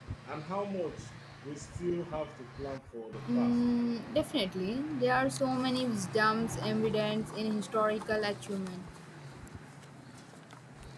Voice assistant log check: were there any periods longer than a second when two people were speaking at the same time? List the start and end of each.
none

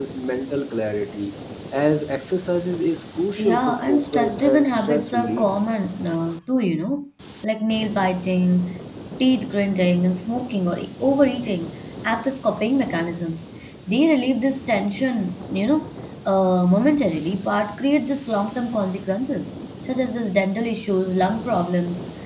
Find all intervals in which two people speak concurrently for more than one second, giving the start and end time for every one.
3.4-5.5

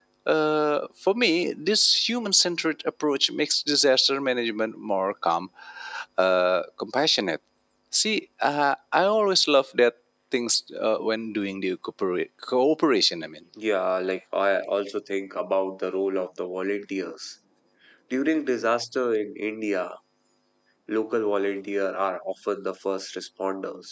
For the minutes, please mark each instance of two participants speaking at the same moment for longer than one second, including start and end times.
none

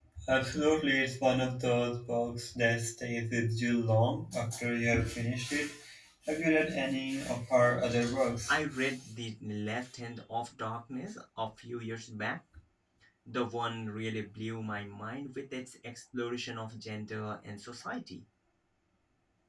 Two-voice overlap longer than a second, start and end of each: none

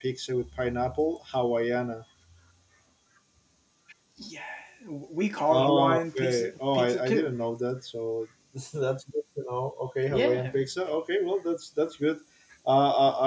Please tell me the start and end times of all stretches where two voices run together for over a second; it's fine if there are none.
5.5-7.3

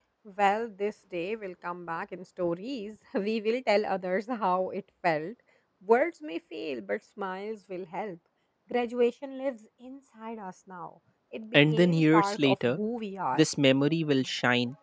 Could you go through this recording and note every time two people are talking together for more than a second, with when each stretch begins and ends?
11.5-12.8

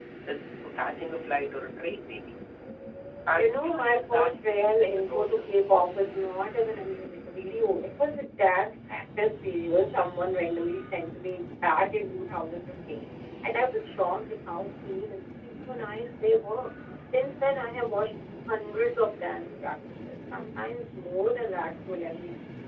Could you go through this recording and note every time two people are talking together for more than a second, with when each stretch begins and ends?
3.3-5.4

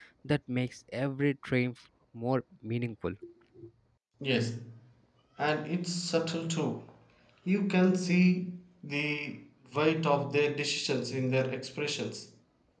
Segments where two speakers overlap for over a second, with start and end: none

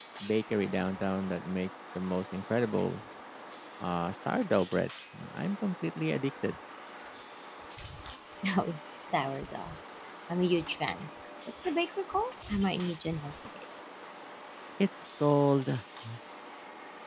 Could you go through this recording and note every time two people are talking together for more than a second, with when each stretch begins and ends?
none

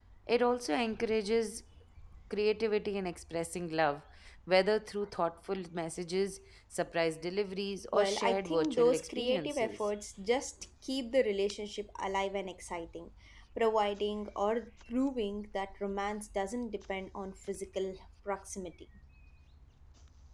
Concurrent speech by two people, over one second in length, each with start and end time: 7.9-9.9

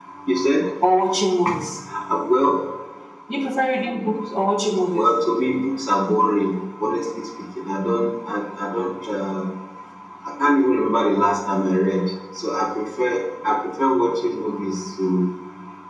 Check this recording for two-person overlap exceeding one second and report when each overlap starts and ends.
none

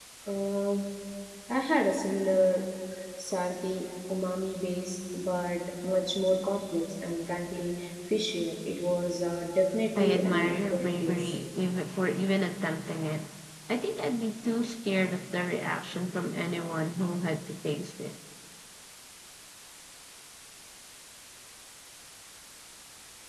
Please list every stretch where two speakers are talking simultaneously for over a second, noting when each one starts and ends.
10.0-11.3

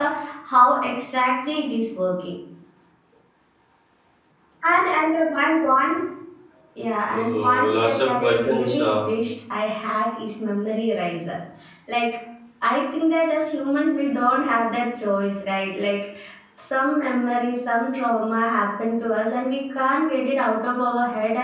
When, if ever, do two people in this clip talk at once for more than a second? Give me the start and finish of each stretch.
7.1-9.0

